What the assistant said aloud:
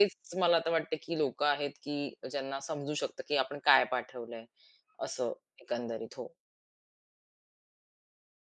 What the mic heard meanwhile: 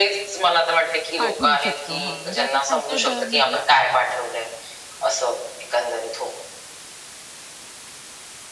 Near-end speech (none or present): present